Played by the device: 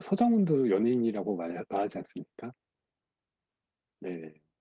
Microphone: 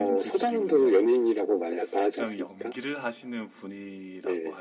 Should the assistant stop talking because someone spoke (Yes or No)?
Yes